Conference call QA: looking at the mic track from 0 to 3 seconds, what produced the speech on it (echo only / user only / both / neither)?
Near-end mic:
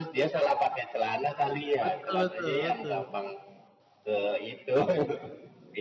both